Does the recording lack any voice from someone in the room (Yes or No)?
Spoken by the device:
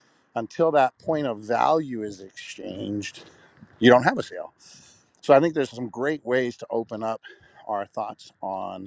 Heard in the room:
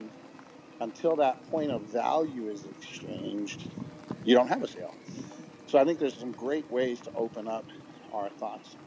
Yes